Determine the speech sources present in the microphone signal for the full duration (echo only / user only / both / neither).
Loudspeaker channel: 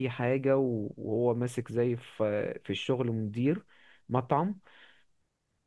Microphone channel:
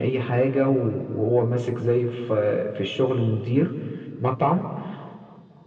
echo only